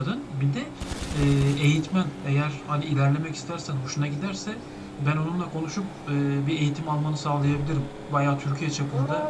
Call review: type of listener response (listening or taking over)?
listening